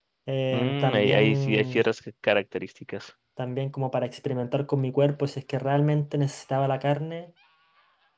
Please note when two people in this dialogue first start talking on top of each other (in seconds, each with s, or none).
0.5 s